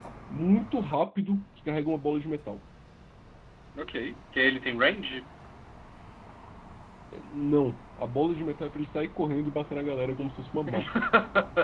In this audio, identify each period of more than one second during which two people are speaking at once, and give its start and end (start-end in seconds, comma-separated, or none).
none